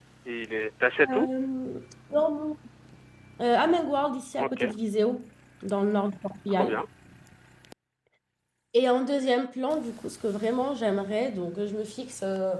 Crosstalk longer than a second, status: none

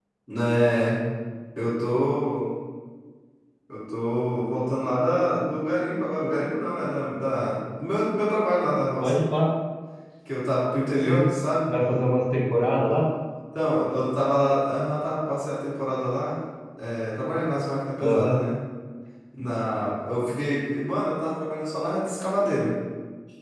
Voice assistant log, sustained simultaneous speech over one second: none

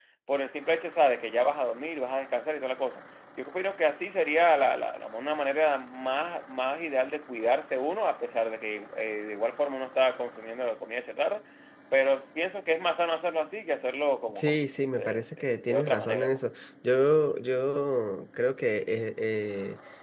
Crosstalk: present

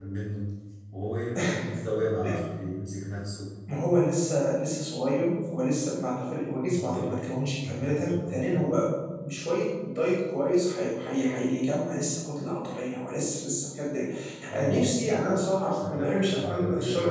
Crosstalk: present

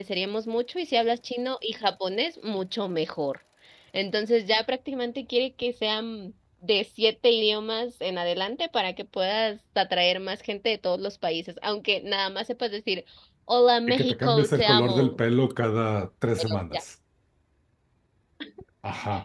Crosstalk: present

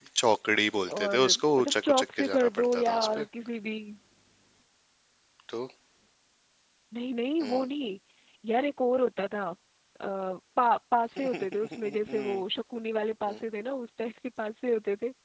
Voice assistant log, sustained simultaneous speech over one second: present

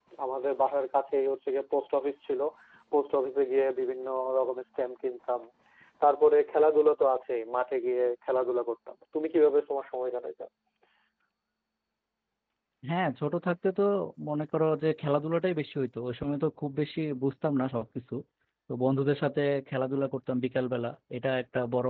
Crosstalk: none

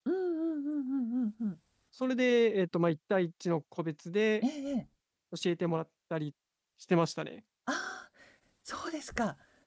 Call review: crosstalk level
none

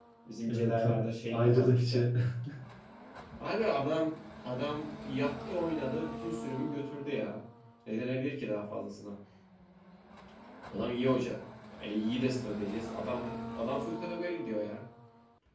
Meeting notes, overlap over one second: present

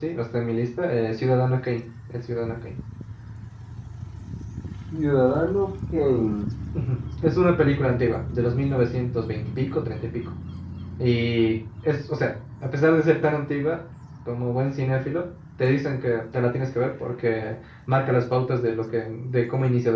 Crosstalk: none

